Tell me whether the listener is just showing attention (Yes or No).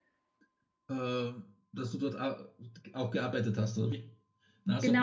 No